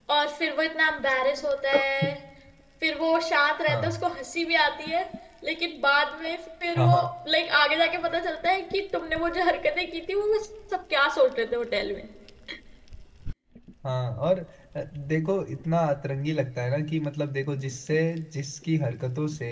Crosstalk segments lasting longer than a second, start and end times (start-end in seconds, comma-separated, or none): none